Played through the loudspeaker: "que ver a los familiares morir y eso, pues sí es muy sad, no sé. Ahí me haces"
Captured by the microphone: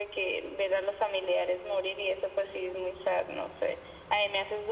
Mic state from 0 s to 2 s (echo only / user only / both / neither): echo only